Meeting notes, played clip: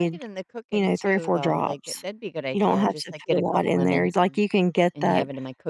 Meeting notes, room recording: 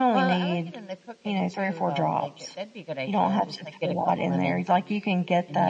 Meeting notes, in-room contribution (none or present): none